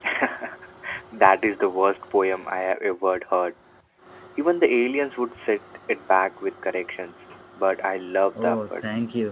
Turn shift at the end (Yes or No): Yes